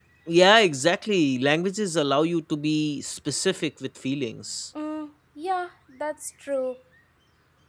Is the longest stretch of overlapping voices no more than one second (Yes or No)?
Yes